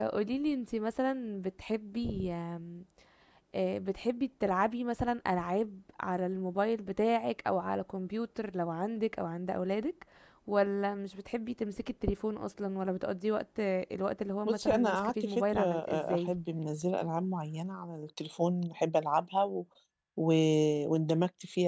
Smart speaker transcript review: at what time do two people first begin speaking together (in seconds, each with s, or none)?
14.4 s